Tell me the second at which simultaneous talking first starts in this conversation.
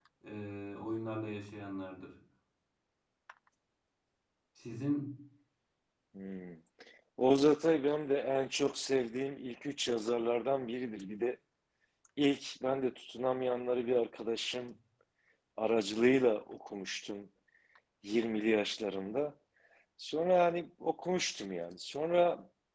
none

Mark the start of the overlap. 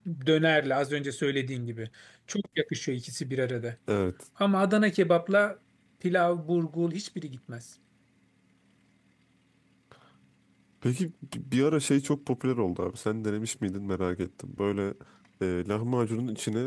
none

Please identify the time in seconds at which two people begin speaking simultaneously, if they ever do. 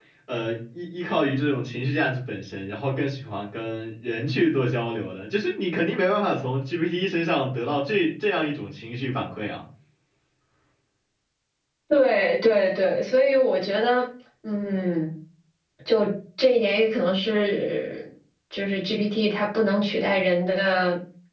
none

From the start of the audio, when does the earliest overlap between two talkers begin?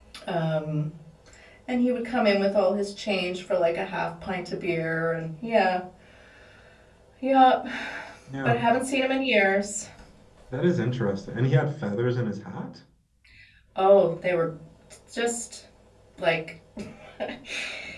none

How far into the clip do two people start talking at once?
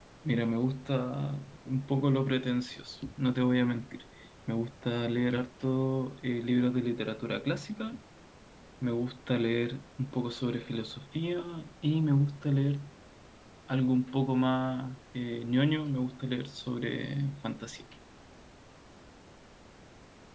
none

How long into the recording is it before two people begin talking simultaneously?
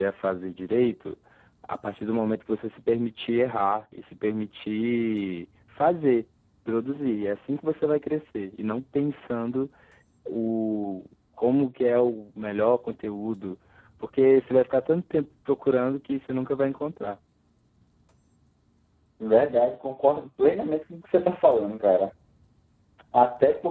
none

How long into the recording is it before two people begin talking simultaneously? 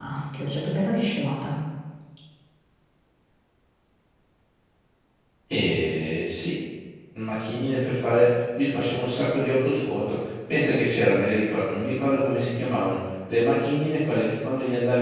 none

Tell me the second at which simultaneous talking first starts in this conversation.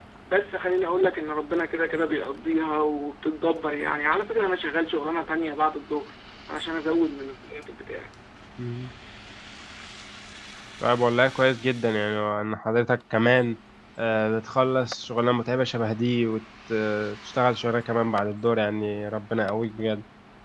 none

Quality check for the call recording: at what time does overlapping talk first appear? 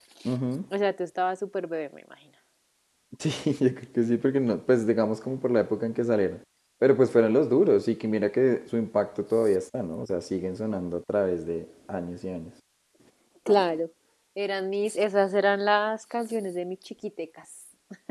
none

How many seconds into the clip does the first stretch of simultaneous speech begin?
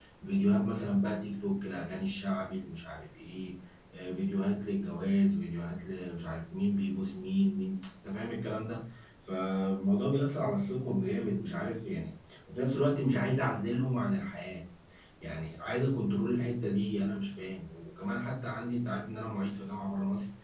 none

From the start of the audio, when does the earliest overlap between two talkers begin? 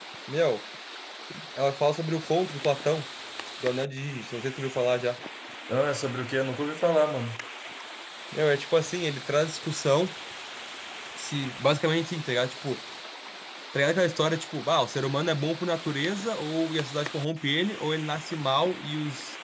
none

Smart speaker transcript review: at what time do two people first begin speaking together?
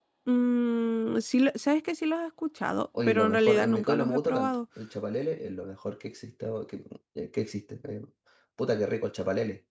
3.0 s

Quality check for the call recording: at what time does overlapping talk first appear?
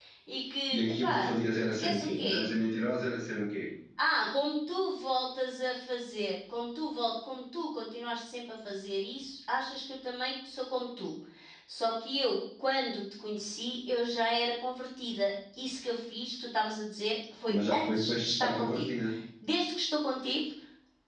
0.8 s

